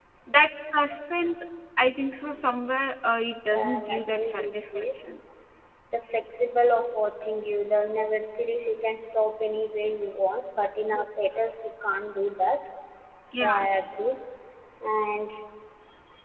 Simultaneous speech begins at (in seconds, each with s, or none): 3.5 s